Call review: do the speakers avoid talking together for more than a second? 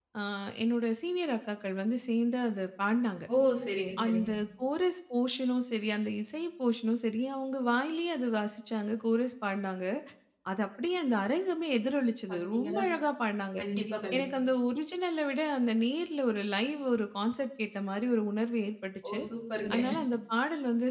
Yes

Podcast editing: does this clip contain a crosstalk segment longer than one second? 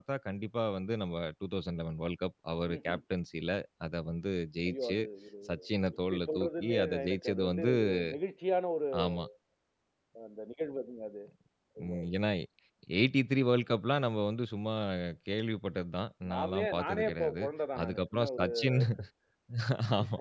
Yes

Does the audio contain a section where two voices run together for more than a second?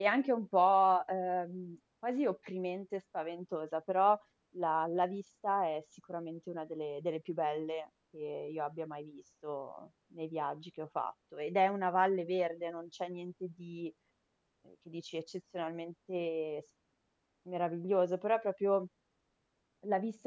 No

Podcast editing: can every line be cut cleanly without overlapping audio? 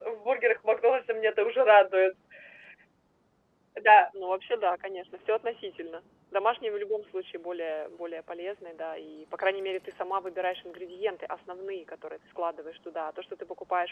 Yes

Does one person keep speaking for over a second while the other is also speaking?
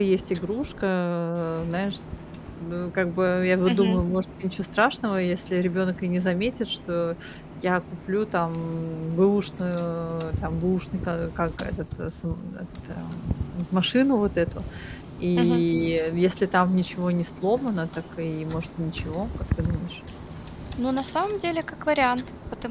No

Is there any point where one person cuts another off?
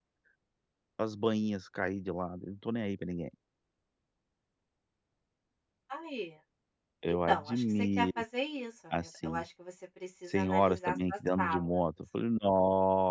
Yes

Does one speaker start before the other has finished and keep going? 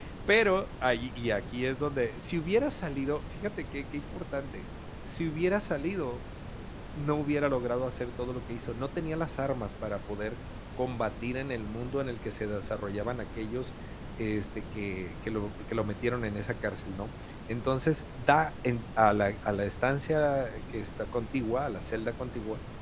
No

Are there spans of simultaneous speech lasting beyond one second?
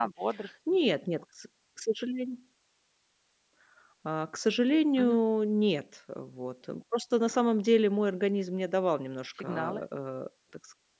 No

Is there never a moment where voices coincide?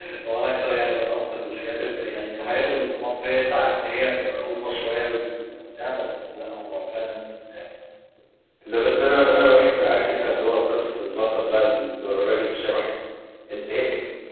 Yes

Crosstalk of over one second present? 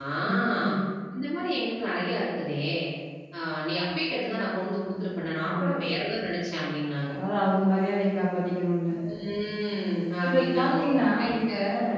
Yes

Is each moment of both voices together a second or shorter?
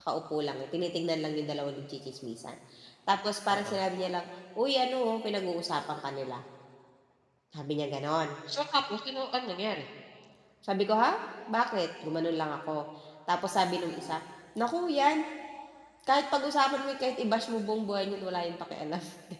Yes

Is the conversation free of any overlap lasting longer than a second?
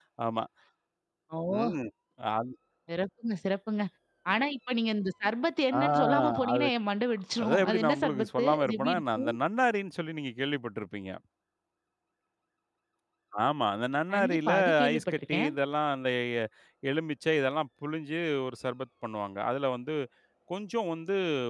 No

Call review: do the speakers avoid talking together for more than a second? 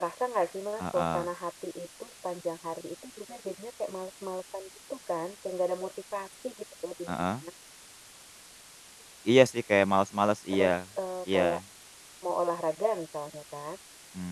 Yes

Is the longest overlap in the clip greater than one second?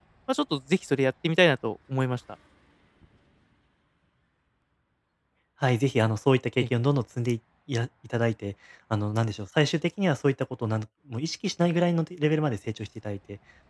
No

